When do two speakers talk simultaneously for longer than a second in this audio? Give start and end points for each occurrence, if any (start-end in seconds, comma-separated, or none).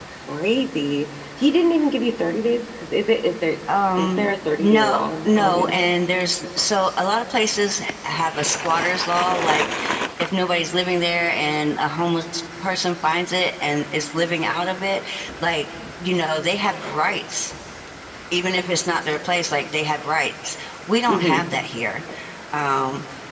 4.6-5.9